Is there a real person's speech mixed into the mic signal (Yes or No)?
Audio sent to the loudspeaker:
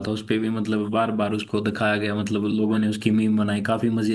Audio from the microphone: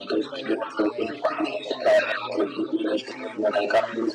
Yes